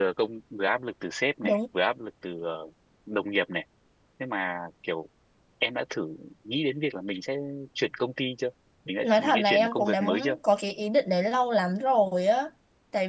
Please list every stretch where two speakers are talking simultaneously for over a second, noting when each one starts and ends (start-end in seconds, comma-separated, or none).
9.0-10.3